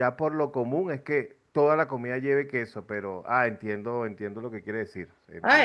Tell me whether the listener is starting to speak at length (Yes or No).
Yes